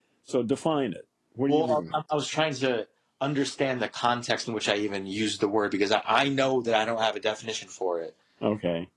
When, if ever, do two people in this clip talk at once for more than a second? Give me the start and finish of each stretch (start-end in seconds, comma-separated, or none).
none